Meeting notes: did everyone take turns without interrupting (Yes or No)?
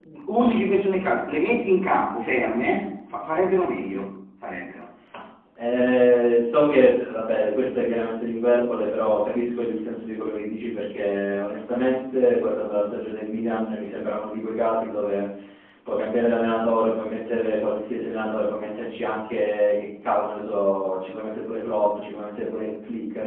Yes